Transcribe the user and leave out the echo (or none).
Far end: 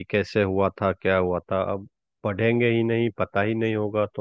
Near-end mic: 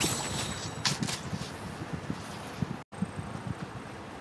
none